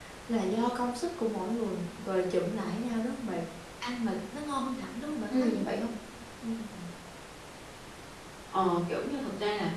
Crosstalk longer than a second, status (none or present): none